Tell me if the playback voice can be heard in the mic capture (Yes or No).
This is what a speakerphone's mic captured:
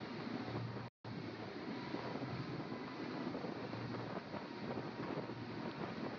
No